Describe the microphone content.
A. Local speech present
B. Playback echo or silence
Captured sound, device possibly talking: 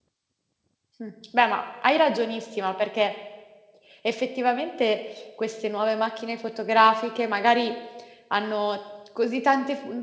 A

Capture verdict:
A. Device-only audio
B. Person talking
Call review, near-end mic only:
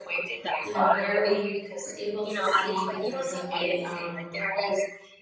B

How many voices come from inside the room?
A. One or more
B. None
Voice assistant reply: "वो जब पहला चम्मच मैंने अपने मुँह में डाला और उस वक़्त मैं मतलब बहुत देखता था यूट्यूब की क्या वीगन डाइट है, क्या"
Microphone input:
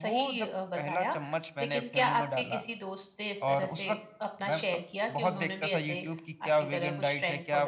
A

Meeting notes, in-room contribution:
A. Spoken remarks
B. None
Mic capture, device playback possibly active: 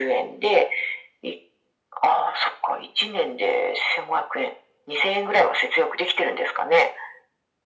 B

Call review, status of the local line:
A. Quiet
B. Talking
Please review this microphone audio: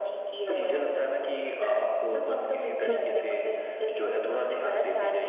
B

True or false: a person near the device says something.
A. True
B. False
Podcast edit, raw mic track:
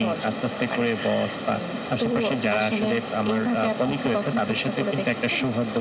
B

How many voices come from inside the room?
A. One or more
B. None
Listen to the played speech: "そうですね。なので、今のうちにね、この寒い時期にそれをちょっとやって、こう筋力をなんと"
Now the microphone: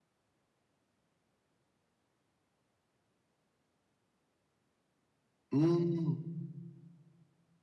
A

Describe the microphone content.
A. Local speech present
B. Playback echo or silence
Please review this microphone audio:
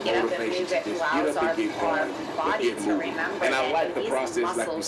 B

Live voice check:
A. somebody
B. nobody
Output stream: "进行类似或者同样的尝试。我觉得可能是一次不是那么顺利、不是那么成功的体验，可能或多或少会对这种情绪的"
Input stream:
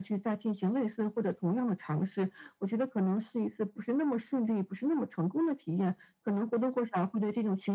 B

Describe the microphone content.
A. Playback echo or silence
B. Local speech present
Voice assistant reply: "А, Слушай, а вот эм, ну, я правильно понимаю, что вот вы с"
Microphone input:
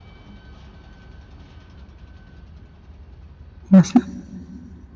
B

